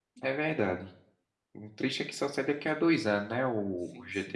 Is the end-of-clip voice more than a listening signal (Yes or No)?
Yes